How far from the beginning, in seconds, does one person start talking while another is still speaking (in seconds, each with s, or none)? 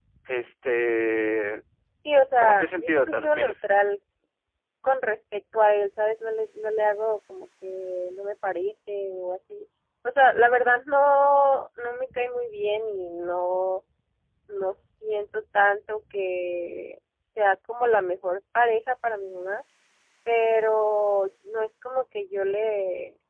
2.4 s